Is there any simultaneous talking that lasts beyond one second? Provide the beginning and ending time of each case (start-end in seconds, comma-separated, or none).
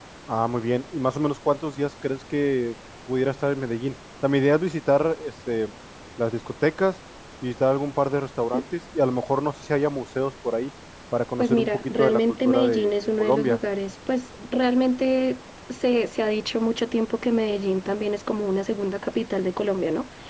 11.4-13.6